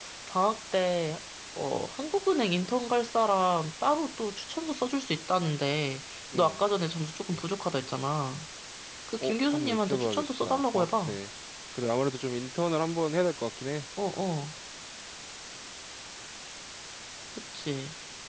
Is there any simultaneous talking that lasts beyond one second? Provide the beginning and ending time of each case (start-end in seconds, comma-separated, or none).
9.2-11.2